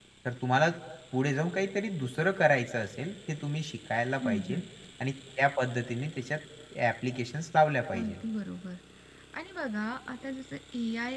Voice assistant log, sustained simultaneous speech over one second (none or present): none